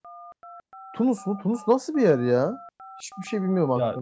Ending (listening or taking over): taking over